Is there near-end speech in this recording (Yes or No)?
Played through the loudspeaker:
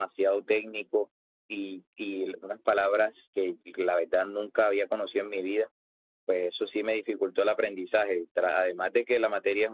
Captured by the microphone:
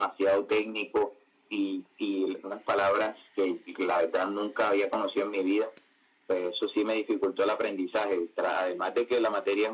No